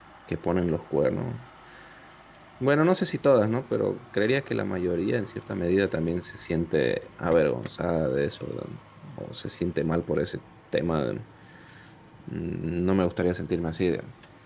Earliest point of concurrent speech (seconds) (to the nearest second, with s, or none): none